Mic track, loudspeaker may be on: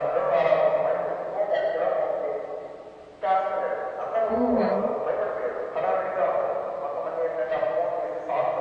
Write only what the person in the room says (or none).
హుహు.